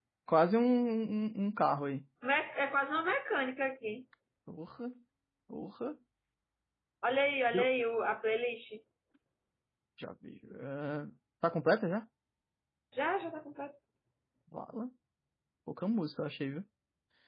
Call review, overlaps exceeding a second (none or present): none